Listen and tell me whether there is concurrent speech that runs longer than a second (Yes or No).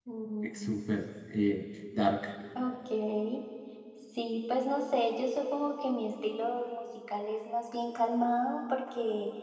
No